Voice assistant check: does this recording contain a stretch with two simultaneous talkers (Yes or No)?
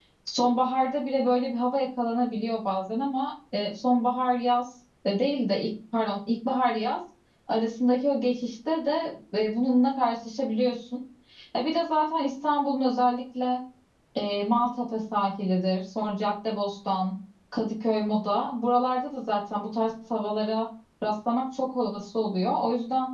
No